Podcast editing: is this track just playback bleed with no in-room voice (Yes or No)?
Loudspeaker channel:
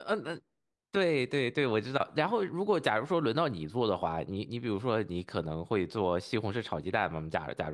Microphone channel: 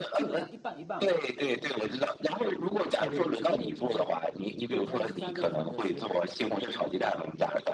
No